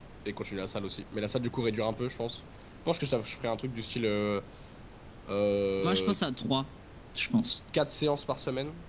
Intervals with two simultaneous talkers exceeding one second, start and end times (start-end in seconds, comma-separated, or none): none